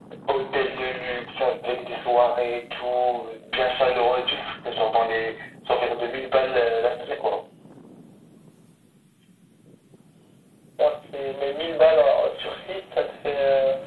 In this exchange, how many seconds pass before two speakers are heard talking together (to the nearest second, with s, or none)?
none